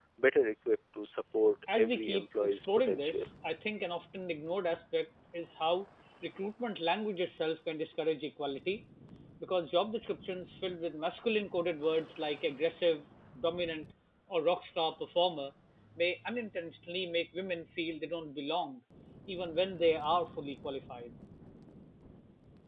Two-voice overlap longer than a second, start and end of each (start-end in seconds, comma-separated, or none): 1.7-3.3